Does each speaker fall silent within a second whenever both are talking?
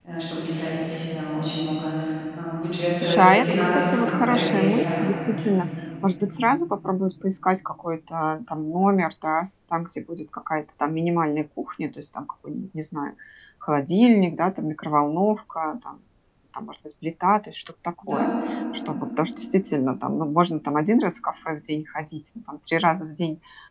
No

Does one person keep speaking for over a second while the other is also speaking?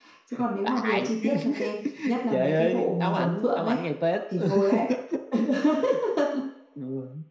Yes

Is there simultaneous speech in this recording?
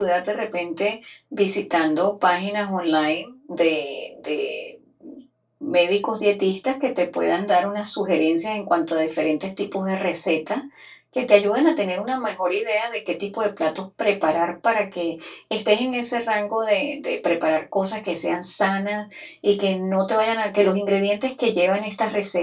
No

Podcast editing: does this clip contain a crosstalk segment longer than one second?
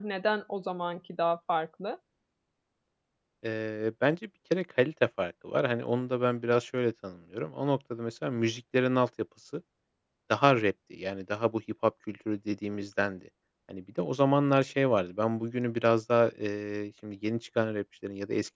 No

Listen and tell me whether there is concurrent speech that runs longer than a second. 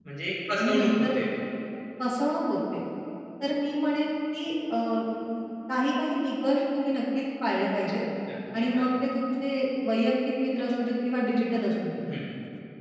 No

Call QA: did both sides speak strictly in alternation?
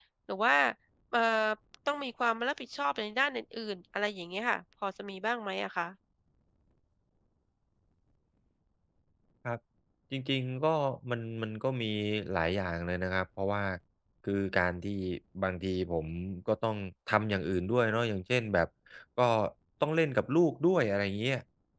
Yes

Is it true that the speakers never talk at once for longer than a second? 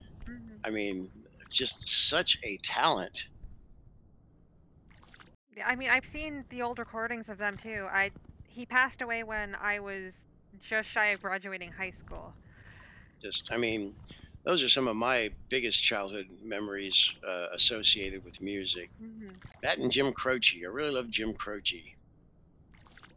Yes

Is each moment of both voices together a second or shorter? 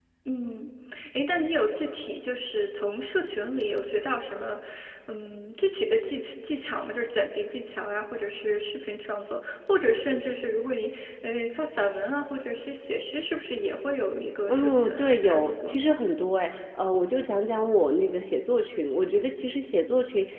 No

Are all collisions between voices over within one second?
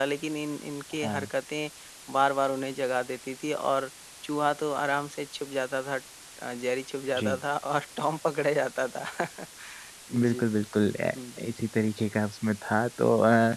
Yes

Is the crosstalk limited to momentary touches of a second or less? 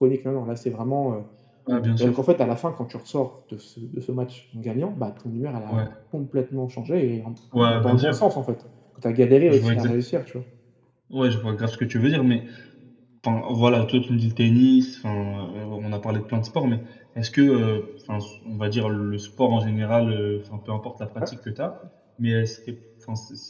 Yes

